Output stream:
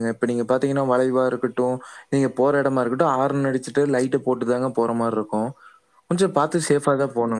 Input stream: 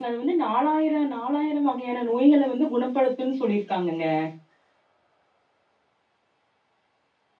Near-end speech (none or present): present